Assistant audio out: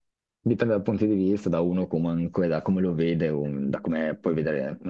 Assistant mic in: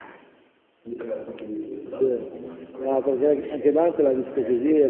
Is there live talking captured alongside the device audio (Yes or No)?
Yes